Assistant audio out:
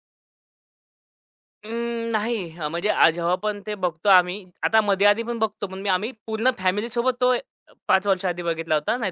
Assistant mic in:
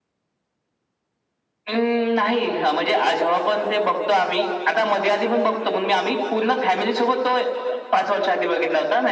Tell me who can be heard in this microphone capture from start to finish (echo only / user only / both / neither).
echo only